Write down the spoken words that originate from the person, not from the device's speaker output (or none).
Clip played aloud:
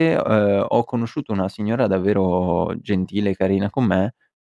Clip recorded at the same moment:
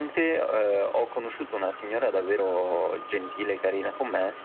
none